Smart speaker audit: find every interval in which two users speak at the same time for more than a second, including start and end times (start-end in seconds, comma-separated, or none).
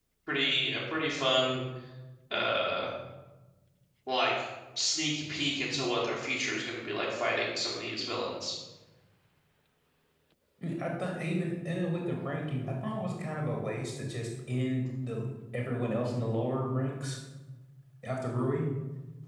none